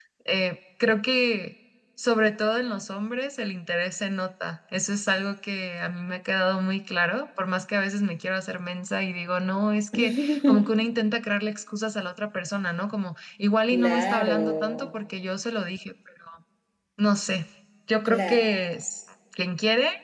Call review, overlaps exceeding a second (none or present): present